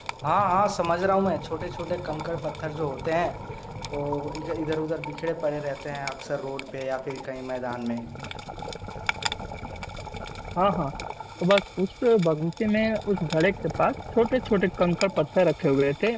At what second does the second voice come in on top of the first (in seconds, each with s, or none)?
none